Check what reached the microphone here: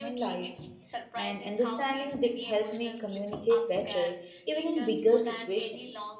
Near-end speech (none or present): present